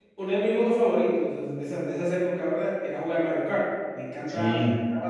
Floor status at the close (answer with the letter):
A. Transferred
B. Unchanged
B